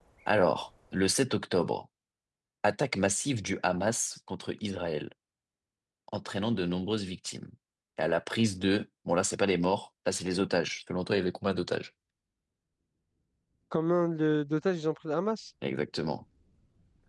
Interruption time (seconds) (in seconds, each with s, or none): none